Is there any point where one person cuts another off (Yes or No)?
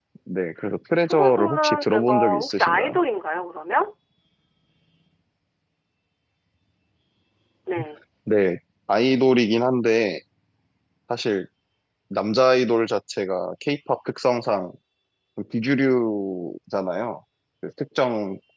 Yes